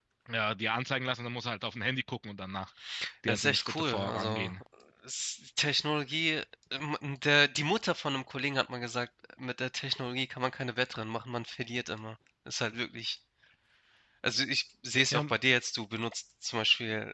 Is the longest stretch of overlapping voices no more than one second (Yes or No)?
No